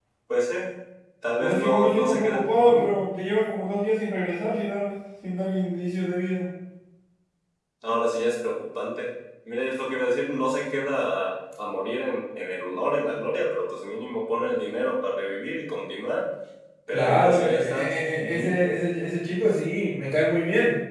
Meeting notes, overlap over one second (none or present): present